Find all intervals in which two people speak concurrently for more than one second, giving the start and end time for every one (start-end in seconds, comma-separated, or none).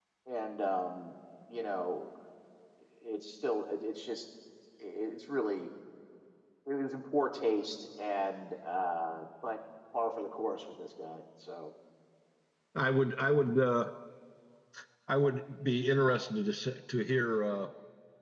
none